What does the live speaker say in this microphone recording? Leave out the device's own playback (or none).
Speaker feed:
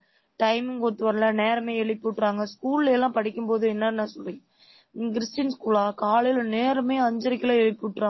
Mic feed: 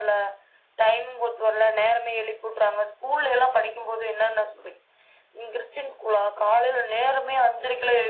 none